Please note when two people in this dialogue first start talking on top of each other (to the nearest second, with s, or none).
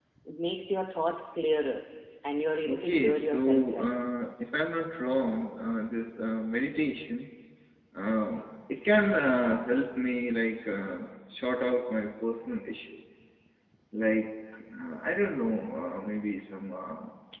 3 s